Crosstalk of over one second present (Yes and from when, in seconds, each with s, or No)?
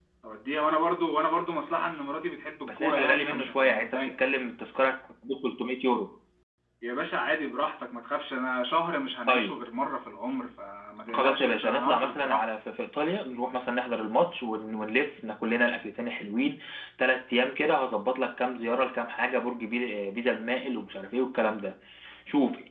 Yes, from 2.6 s